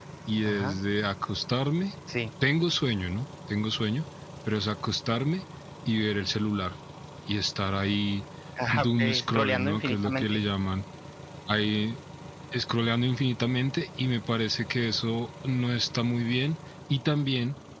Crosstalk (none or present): present